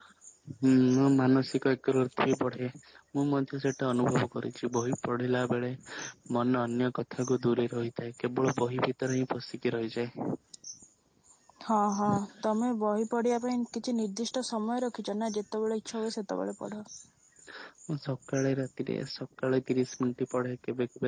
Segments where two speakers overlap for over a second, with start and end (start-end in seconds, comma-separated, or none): none